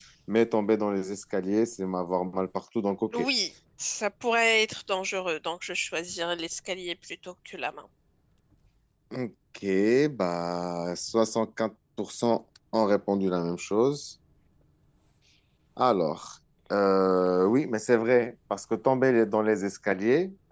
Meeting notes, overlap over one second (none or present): none